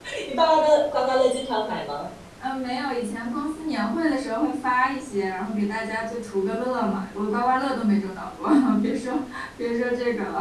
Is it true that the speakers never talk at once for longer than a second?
Yes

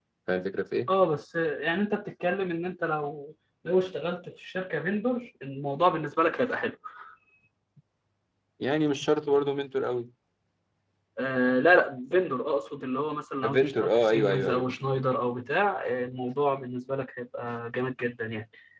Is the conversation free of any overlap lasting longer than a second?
No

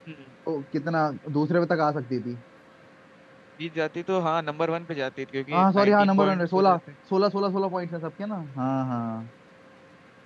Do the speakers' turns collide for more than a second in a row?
Yes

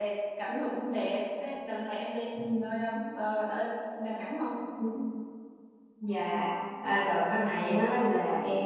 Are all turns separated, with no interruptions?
Yes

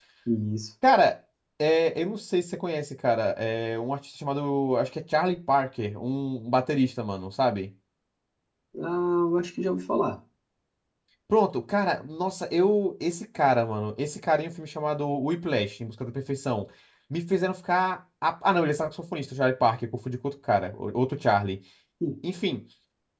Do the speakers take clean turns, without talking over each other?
Yes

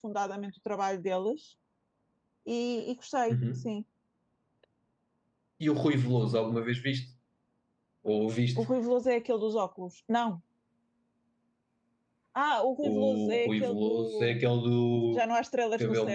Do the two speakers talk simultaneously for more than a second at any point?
Yes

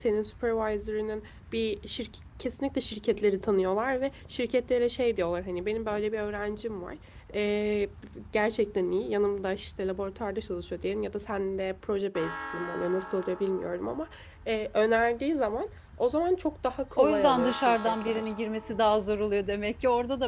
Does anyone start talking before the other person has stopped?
Yes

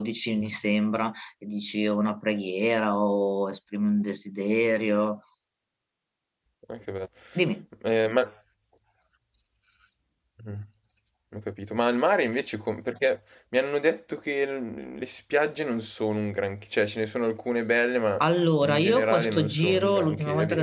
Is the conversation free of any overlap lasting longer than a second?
No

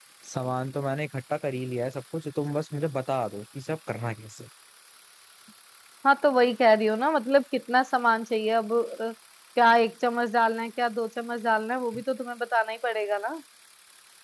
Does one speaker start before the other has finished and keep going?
No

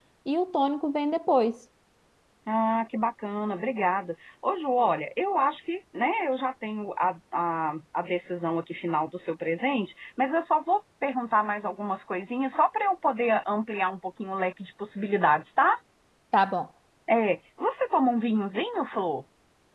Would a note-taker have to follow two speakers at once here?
No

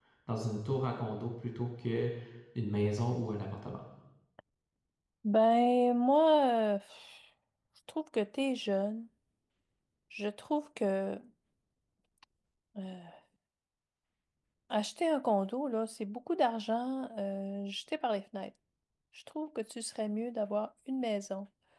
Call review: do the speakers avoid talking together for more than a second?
Yes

